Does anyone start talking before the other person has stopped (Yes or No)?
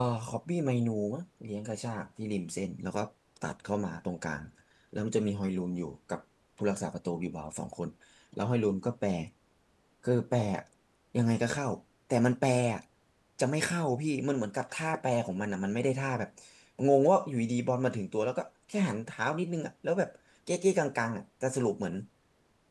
No